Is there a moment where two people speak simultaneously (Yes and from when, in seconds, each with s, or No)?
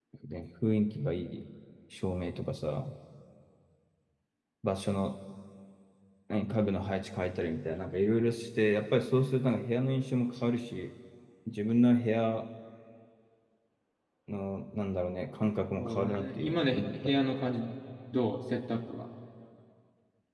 Yes, from 15.8 s